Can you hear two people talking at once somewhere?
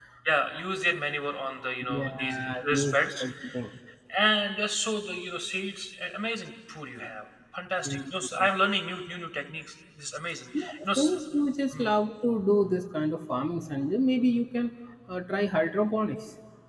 Yes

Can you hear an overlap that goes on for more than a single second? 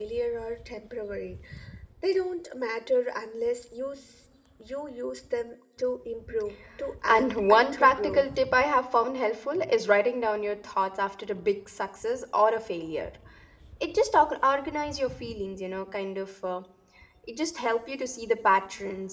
Yes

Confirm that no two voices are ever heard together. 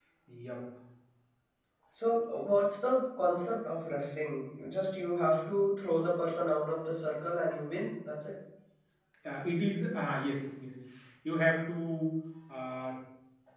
Yes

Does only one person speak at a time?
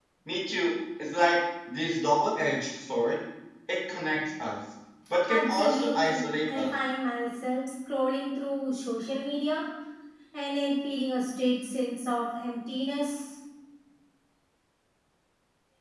No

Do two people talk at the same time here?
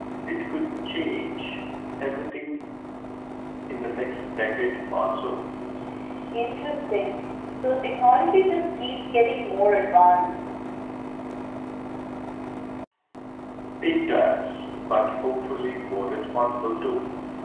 No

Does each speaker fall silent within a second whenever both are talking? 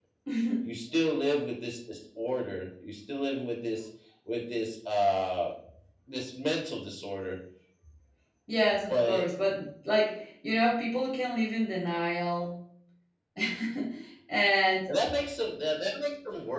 Yes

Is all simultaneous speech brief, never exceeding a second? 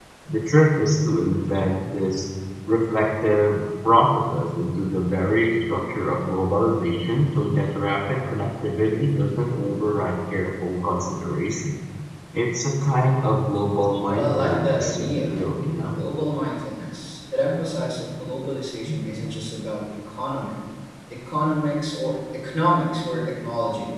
No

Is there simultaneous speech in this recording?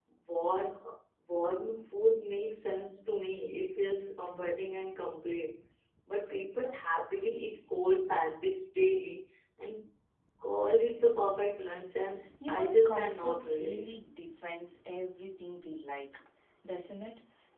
Yes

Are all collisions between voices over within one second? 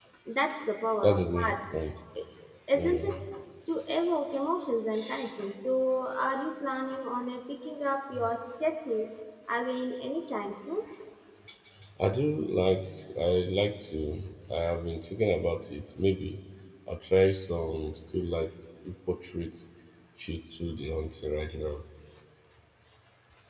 Yes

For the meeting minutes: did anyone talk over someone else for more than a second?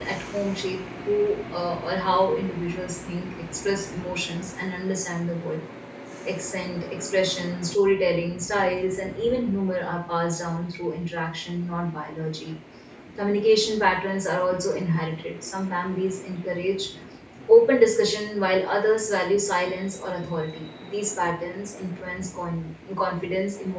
No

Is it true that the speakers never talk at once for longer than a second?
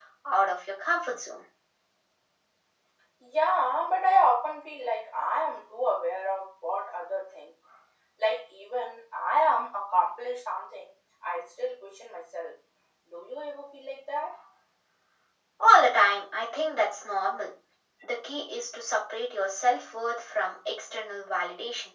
Yes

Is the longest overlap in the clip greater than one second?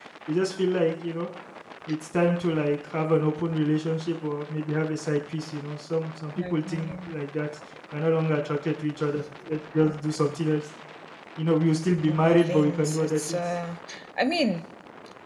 Yes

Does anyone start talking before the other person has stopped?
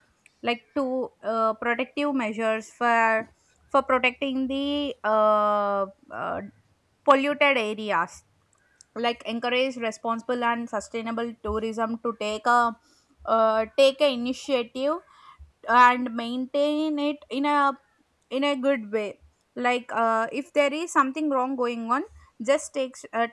No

